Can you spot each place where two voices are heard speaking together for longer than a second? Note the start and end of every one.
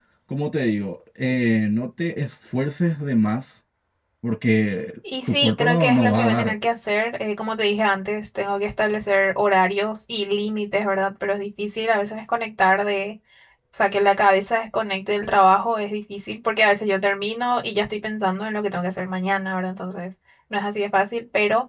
5.3-6.5

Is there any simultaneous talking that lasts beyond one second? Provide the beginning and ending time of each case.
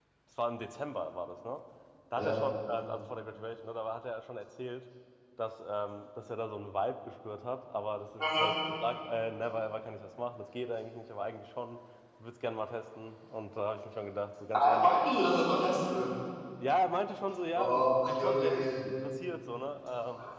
17.5-18.7

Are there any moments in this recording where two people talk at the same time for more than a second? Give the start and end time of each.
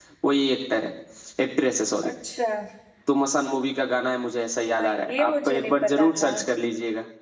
4.7-6.3

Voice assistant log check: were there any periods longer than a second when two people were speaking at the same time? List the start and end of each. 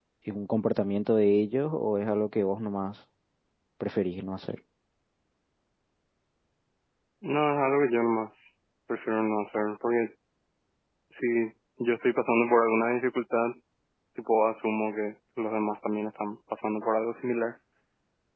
none

